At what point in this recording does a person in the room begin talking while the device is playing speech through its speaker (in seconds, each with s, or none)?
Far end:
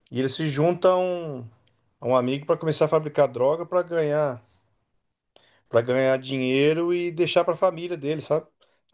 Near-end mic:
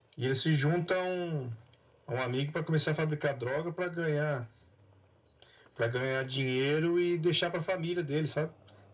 none